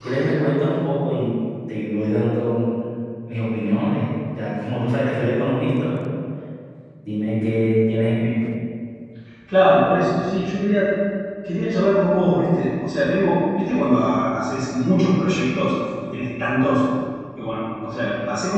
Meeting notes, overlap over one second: none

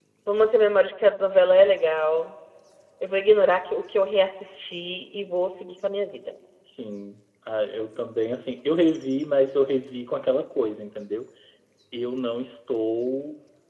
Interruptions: none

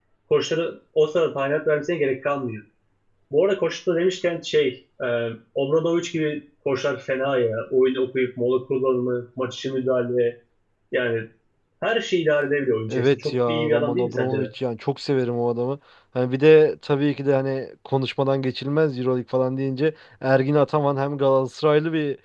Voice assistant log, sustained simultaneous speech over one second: present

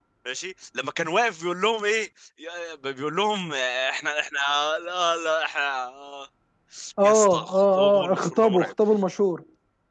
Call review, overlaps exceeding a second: present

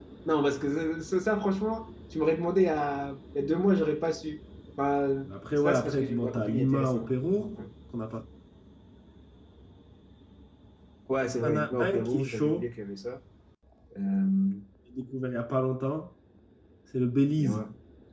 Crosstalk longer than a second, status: present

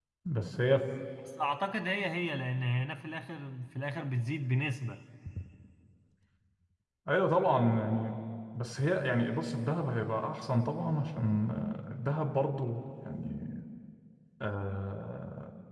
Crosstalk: none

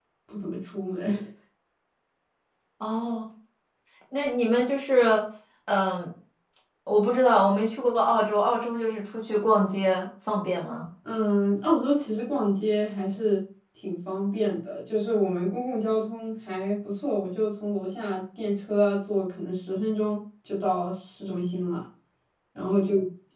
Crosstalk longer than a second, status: none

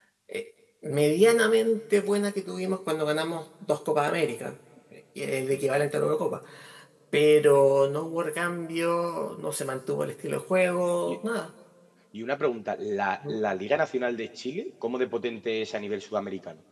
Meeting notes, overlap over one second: none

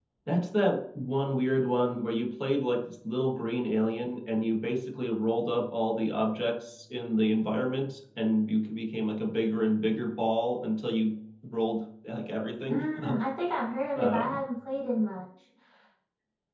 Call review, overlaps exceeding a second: none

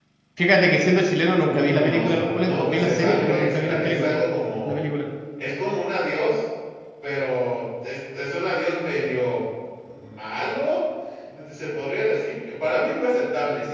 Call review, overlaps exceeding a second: present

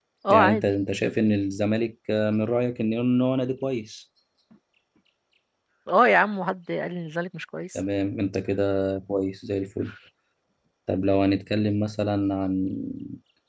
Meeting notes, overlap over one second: none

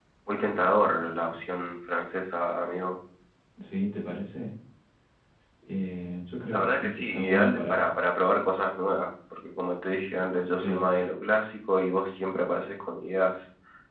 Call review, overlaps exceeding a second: present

